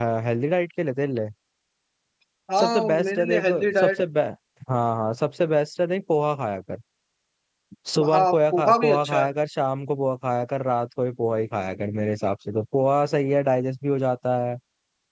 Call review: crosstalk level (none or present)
present